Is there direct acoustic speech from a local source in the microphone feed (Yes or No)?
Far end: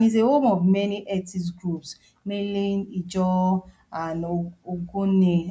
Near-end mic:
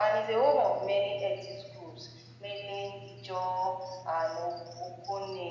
No